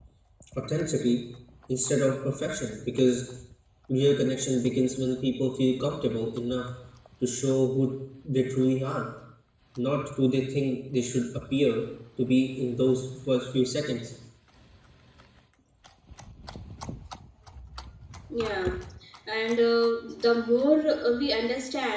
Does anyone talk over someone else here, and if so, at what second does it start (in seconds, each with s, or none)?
none